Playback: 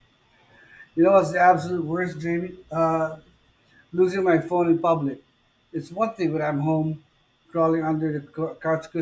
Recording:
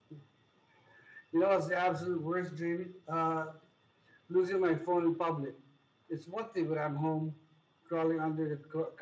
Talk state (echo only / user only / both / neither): echo only